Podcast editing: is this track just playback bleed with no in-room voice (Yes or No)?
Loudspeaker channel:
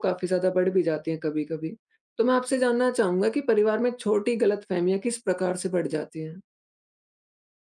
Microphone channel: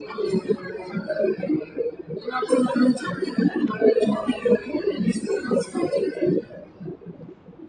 Yes